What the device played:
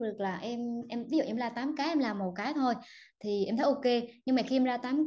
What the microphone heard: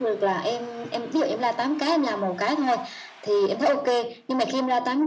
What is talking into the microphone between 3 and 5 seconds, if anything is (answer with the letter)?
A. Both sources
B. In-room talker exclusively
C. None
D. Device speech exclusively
D